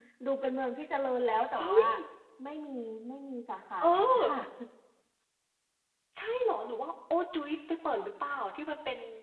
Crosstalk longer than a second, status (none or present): none